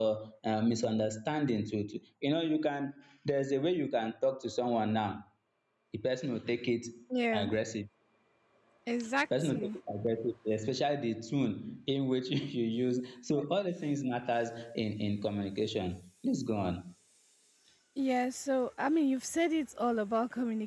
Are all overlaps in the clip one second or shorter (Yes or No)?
Yes